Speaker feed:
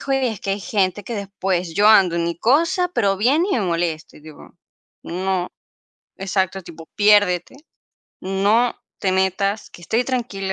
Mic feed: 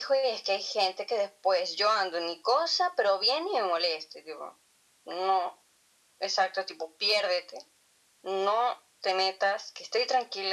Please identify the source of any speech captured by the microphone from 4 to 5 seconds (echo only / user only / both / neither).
echo only